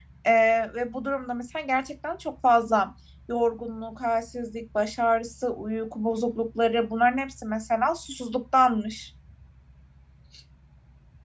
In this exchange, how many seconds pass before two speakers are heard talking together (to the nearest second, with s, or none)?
none